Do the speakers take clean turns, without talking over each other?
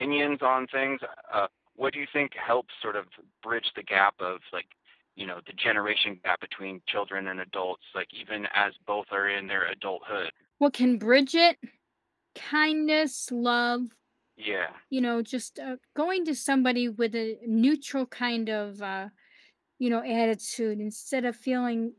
Yes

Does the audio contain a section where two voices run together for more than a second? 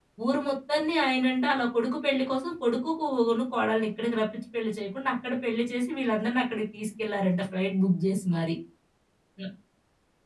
No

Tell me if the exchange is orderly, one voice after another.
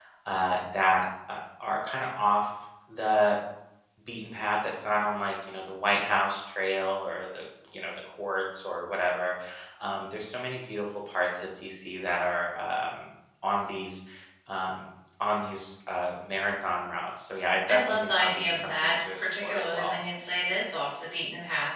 No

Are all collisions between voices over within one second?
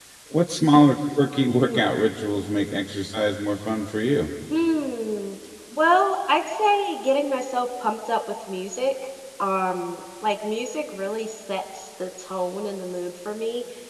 Yes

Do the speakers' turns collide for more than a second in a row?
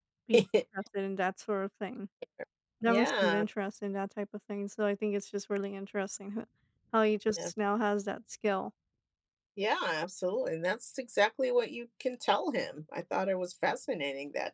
No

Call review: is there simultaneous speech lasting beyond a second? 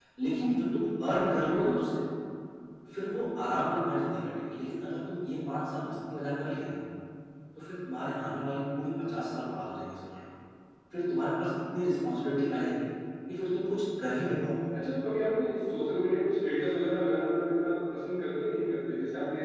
No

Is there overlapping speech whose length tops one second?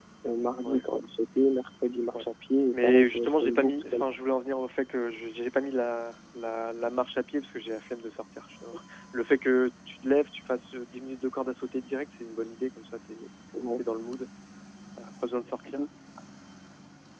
Yes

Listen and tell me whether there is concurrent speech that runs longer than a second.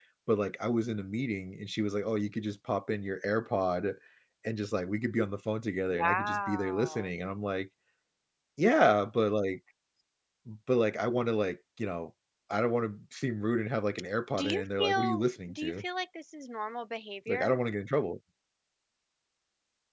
Yes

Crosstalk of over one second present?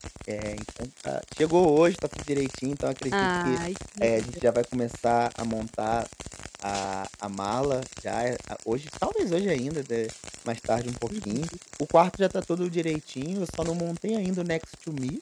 No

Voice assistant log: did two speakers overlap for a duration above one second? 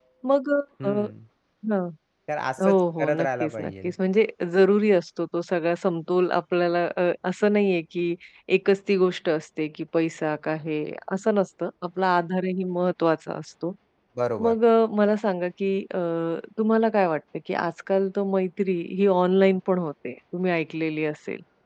Yes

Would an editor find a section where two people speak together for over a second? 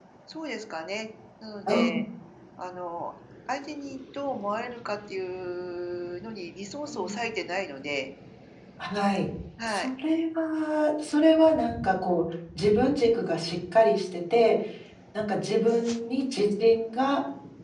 No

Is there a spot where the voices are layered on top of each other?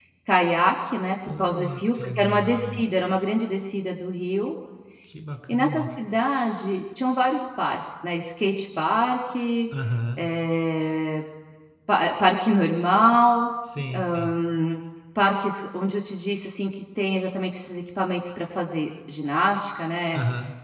Yes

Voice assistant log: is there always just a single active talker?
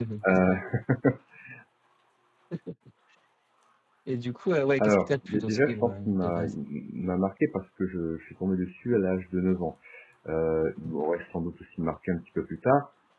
No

